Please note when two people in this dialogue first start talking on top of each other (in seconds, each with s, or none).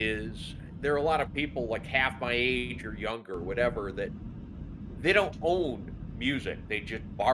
none